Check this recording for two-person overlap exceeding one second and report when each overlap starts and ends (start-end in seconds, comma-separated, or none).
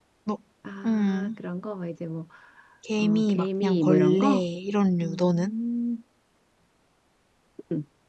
3.0-4.5